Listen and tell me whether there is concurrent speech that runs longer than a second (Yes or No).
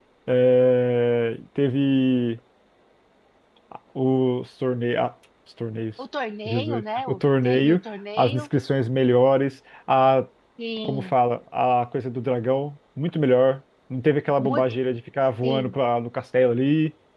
Yes